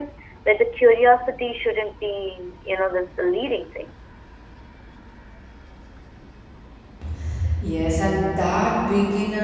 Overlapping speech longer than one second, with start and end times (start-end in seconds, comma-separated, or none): none